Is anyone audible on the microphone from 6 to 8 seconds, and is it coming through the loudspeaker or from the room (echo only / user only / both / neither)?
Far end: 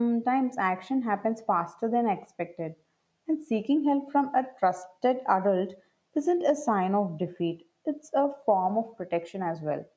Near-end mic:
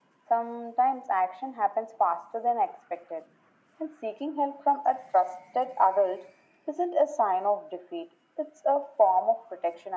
echo only